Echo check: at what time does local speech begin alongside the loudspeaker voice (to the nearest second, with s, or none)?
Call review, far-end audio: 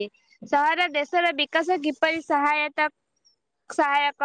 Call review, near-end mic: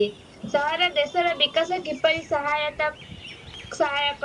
none